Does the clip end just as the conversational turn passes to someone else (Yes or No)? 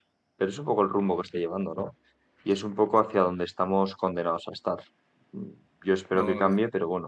No